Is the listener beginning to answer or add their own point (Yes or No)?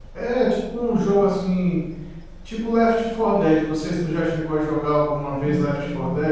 Yes